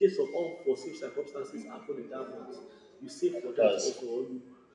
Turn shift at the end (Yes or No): No